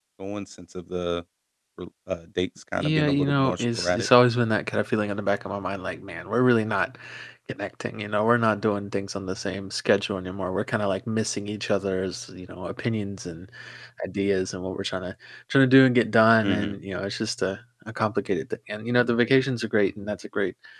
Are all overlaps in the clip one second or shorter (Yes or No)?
No